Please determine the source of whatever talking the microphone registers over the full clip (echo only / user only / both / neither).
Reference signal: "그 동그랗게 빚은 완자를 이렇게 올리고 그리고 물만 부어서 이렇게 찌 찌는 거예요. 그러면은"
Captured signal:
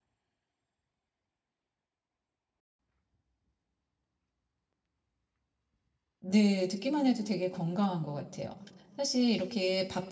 user only